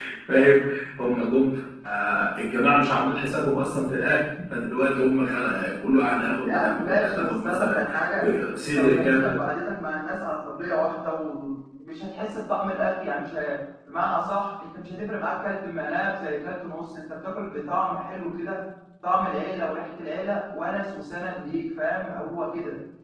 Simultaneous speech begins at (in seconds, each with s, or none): 6.4 s